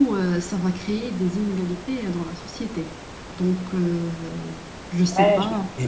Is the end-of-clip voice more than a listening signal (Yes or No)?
Yes